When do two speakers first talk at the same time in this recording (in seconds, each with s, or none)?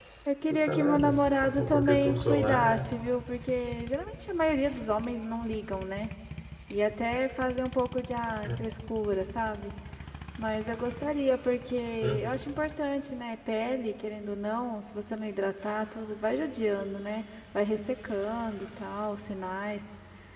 0.5 s